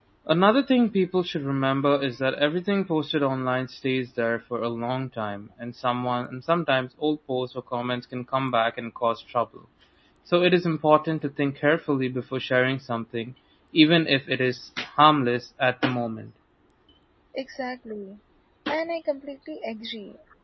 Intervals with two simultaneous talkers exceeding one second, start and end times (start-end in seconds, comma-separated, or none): none